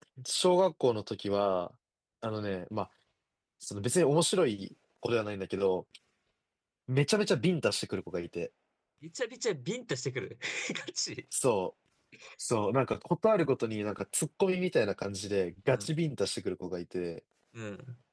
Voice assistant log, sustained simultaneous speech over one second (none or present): none